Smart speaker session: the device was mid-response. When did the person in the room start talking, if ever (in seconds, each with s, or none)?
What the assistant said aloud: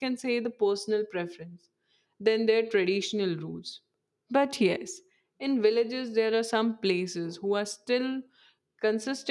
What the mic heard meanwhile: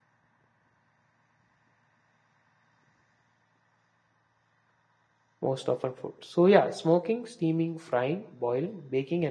5.4 s